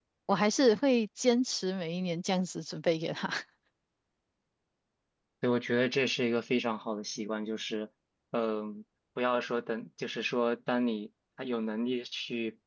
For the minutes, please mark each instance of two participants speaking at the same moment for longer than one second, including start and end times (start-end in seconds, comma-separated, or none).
none